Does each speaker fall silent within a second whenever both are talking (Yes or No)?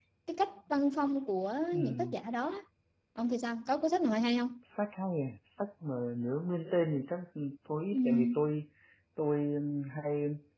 Yes